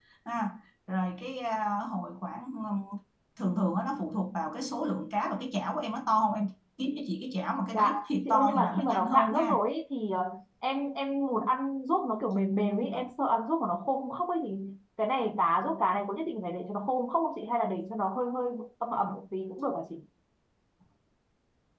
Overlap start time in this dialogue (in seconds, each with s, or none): 7.7 s